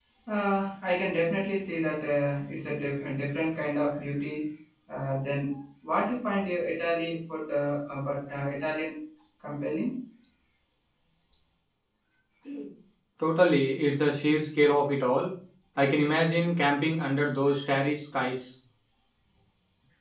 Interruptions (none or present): none